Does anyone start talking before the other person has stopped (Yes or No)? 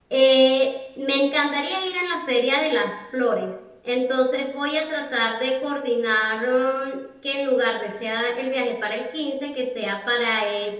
No